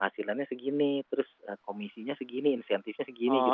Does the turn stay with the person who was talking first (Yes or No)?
No